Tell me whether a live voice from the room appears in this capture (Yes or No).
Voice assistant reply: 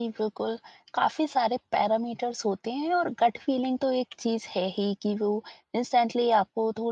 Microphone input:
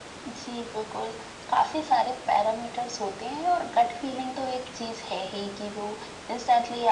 No